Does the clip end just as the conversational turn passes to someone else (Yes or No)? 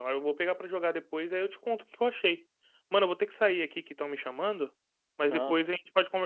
No